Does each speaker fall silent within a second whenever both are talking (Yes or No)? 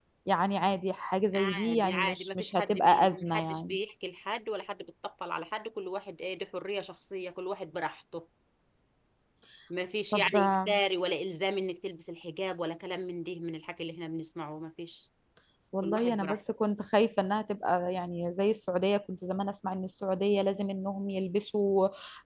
No